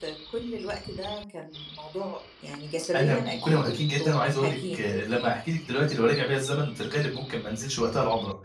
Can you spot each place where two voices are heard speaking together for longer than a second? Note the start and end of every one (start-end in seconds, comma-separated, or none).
3.0-4.6